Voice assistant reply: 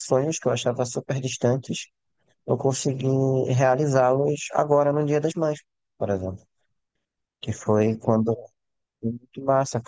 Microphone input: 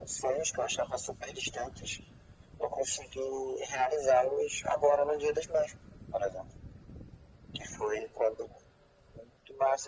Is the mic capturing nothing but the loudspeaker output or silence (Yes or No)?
Yes